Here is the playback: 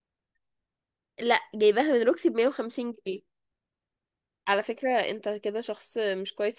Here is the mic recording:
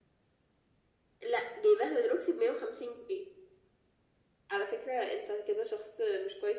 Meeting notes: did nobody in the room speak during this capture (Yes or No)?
Yes